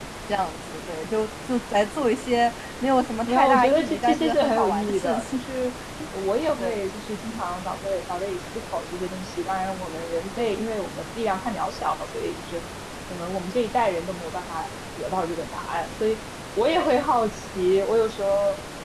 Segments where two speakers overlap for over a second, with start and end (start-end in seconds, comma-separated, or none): 3.3-5.4